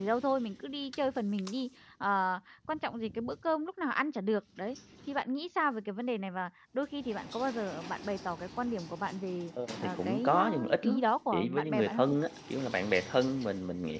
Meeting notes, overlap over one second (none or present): present